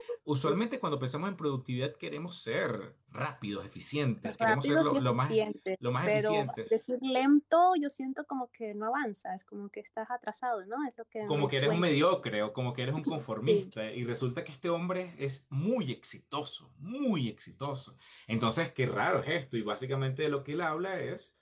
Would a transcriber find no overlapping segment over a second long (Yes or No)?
No